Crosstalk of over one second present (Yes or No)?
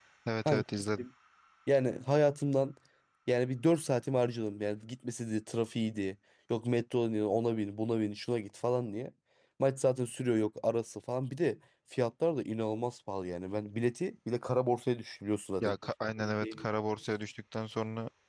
No